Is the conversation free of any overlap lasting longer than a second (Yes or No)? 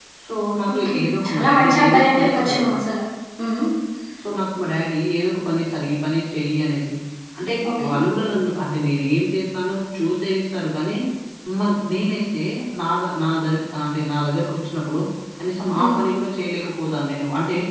No